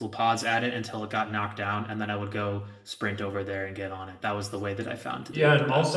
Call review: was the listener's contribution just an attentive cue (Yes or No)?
No